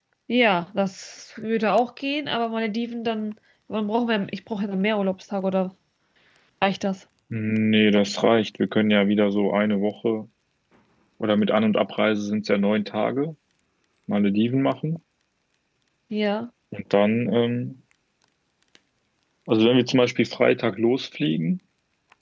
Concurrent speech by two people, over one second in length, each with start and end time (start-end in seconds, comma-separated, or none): none